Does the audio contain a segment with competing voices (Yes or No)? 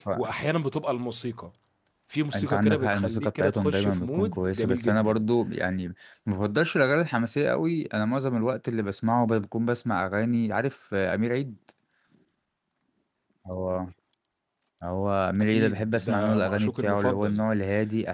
Yes